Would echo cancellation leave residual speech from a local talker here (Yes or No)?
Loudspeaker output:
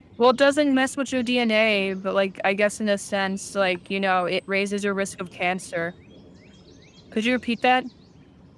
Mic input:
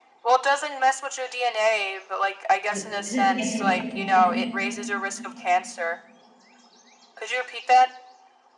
Yes